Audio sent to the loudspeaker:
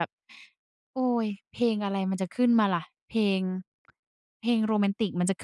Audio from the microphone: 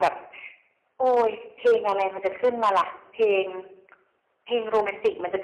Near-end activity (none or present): none